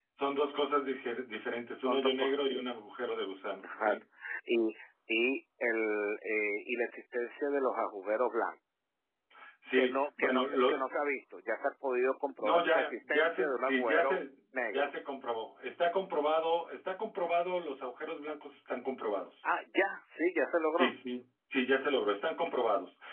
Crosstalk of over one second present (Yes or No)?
Yes